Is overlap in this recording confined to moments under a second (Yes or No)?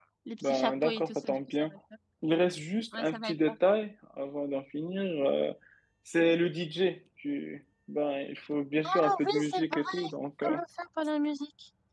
No